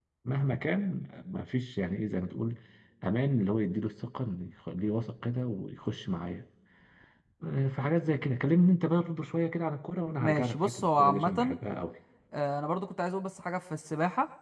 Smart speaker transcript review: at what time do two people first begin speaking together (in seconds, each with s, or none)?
10.2 s